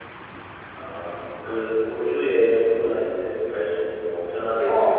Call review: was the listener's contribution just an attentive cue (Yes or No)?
No